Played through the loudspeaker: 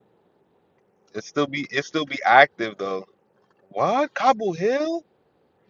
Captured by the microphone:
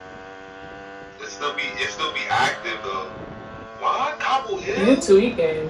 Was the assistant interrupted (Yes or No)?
Yes